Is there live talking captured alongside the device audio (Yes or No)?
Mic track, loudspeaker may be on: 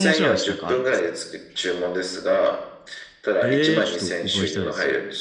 Yes